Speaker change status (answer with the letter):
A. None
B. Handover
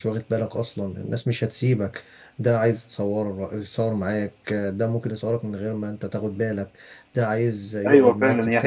B